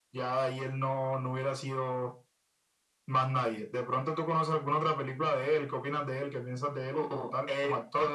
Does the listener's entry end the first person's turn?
Yes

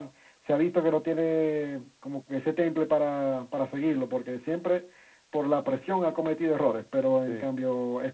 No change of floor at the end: Yes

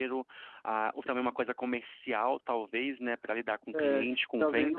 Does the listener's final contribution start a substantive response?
Yes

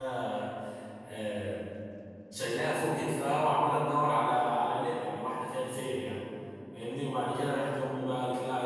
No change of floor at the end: Yes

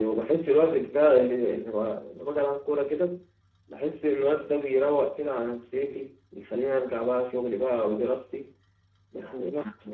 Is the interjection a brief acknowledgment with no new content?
Yes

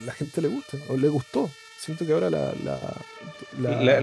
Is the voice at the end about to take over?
Yes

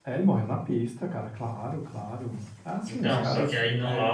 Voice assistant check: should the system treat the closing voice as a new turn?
Yes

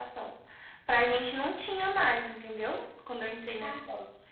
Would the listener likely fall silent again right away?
Yes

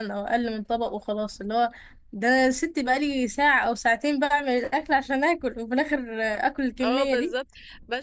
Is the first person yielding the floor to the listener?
Yes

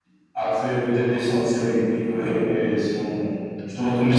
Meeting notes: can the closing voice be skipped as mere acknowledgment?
No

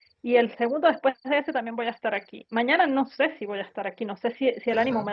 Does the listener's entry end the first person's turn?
No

